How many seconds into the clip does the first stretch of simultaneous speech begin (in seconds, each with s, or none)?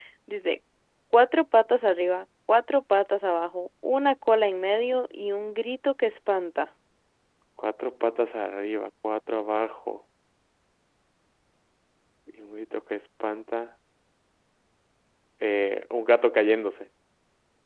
none